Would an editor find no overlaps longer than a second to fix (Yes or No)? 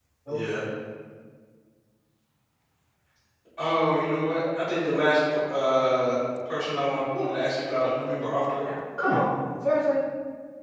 Yes